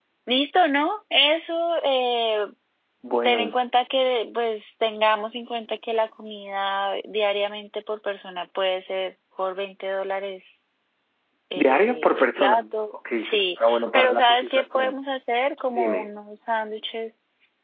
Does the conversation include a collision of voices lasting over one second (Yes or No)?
Yes